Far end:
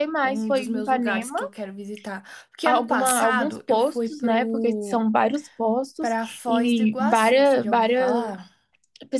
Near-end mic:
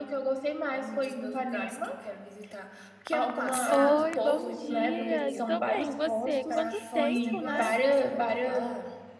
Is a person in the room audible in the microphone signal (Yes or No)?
Yes